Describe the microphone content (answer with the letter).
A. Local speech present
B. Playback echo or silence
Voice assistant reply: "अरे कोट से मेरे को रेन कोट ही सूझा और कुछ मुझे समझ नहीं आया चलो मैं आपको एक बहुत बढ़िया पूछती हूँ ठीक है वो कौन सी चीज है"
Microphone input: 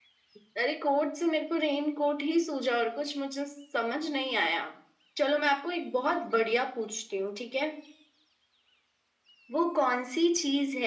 B